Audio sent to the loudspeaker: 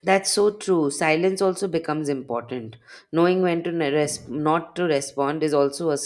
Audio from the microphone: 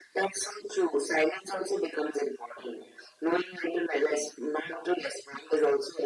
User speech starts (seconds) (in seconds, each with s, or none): none